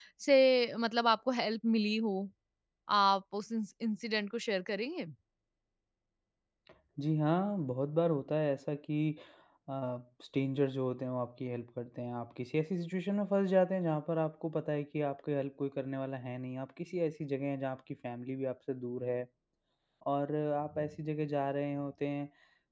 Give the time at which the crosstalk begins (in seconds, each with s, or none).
none